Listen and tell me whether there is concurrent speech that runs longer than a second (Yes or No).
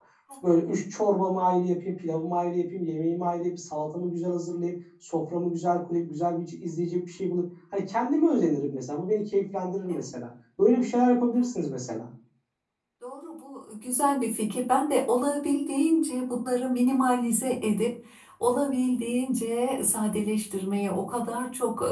No